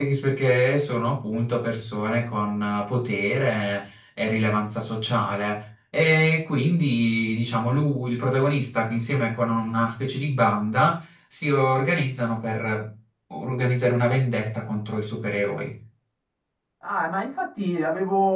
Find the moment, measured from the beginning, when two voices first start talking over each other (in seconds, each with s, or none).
none